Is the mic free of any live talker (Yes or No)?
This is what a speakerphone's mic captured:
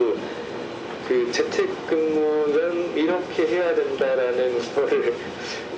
Yes